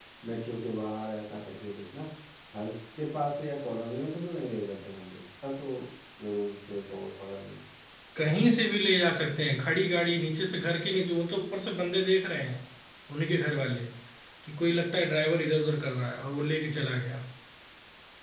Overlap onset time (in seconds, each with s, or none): none